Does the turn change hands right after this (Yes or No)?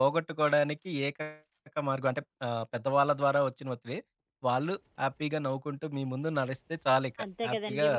Yes